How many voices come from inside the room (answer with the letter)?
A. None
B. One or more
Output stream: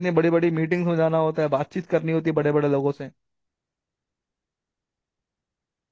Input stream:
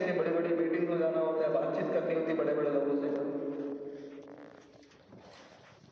A